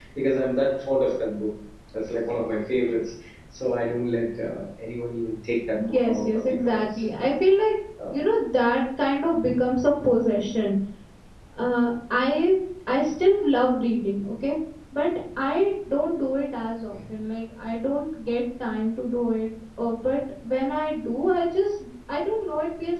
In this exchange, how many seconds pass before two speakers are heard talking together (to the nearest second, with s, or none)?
6 s